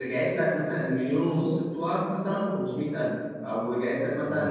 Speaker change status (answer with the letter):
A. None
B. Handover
A